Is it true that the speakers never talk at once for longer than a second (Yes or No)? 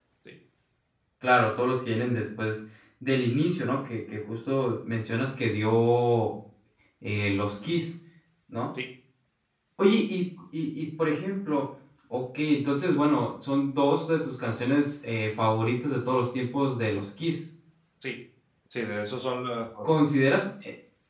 Yes